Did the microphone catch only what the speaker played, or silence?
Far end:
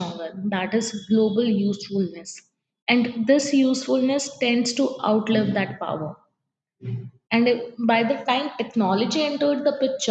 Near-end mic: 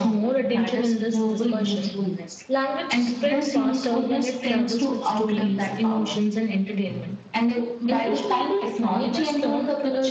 No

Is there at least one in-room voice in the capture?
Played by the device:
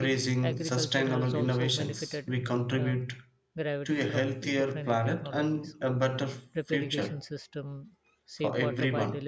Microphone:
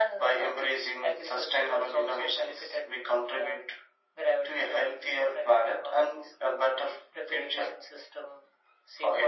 No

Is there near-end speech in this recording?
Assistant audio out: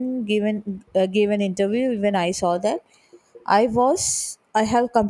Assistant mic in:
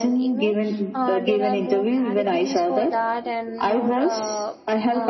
Yes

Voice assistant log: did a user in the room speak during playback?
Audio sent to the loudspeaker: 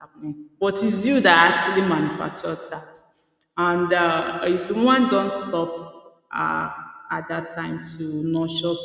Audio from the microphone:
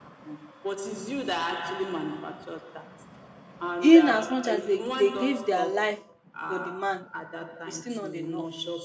Yes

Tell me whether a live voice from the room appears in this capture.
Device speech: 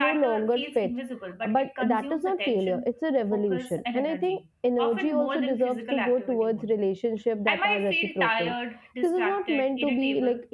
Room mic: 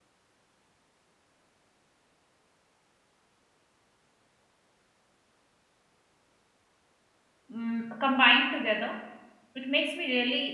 Yes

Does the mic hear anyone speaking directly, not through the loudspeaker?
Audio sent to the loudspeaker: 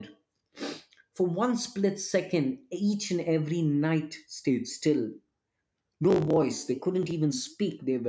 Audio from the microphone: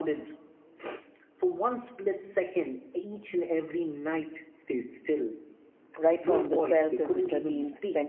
Yes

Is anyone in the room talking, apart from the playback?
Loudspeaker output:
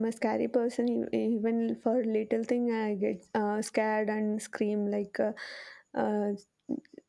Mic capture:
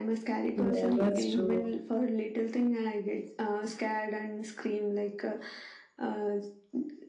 Yes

